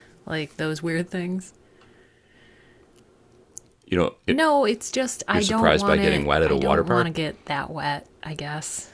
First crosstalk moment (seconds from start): 5.3 s

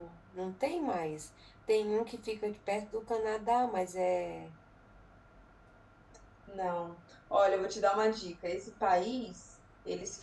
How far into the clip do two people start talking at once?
none

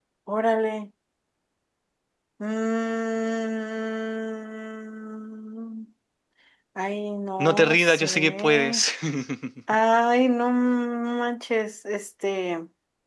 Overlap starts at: 7.4 s

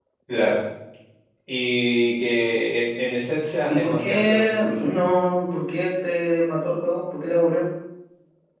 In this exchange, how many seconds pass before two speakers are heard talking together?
3.7 s

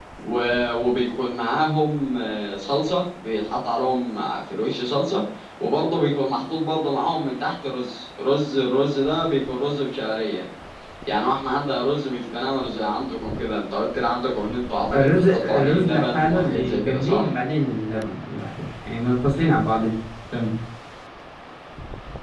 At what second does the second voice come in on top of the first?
14.9 s

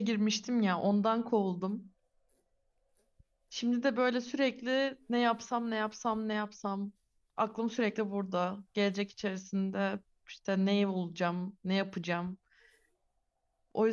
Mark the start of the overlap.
none

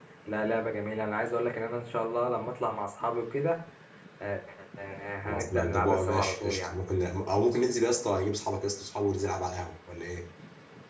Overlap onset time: 5.2 s

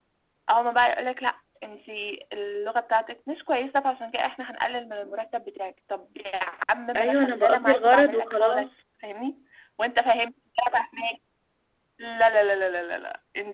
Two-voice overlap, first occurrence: 7.0 s

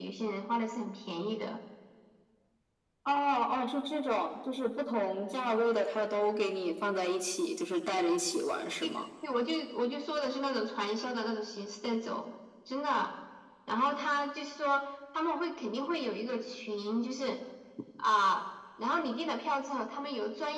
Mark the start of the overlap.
none

